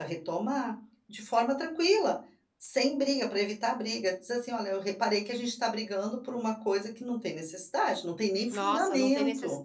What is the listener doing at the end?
taking over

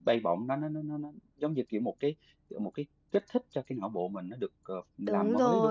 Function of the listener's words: taking over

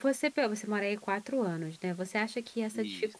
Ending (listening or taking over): listening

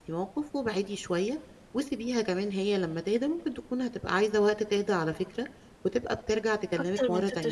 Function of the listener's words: taking over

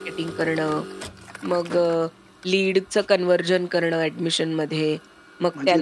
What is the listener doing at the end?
listening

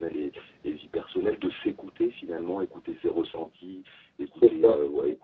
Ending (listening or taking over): listening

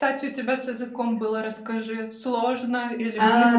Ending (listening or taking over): taking over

